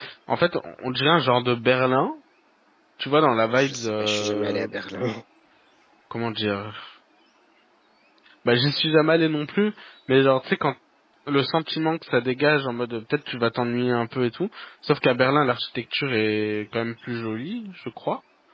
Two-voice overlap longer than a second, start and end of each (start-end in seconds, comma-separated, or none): 3.5-4.7